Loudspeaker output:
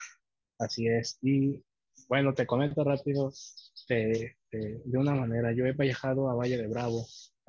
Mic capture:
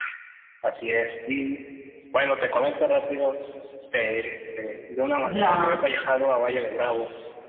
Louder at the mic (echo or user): user